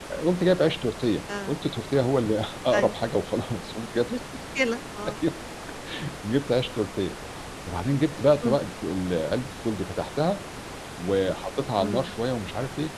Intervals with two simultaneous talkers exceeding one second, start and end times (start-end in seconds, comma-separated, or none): none